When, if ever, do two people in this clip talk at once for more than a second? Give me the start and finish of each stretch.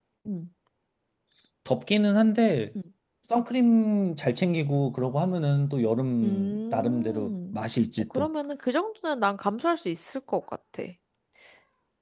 6.2-7.5

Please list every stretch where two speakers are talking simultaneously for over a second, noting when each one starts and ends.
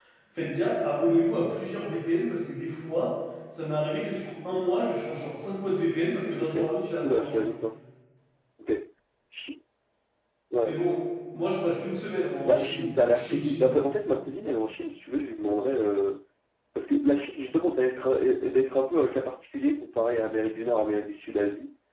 12.5-13.7

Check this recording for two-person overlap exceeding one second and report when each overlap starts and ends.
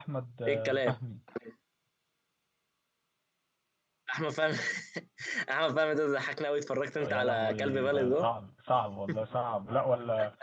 7.1-8.3

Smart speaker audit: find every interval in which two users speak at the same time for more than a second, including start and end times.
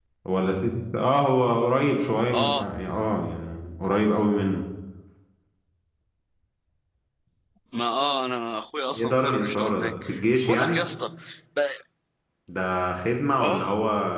8.9-10.8

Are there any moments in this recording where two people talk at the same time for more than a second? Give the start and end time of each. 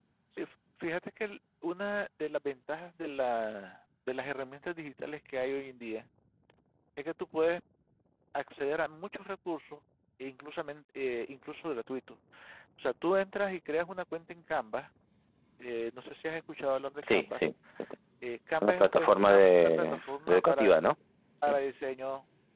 18.6-20.7

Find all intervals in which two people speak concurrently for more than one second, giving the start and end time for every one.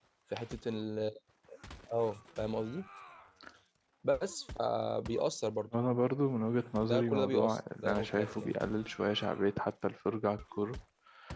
6.8-8.6

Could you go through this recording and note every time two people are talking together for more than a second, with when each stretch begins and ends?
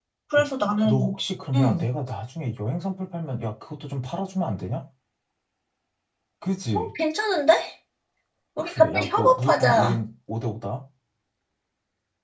8.6-10.0

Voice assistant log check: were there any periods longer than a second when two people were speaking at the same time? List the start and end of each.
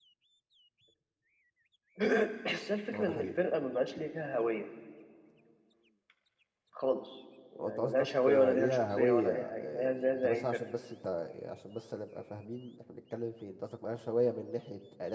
7.6-10.6

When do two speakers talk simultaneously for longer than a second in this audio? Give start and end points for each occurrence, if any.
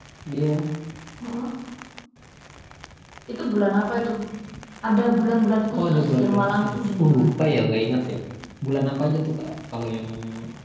5.7-7.3

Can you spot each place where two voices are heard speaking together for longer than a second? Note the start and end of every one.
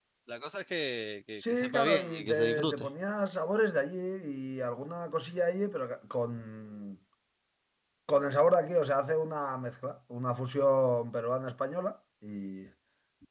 1.4-2.9

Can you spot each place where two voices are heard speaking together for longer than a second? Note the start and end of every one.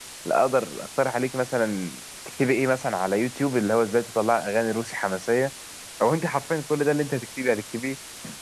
none

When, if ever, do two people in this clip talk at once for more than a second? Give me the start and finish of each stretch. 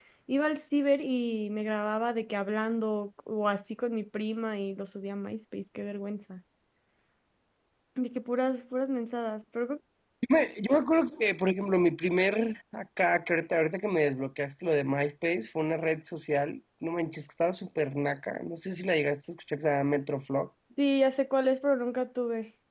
none

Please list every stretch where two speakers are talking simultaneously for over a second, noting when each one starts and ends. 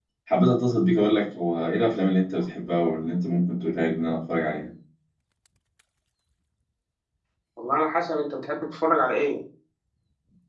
none

